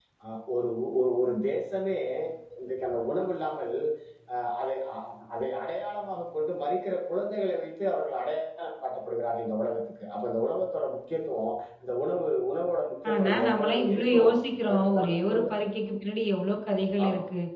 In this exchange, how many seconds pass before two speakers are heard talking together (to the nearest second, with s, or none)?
13 s